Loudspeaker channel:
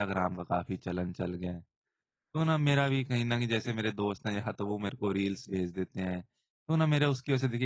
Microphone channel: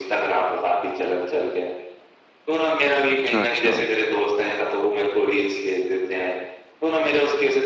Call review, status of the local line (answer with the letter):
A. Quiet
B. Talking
B